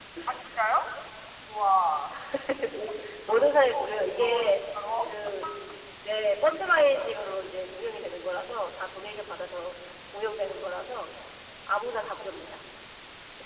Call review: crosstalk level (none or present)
present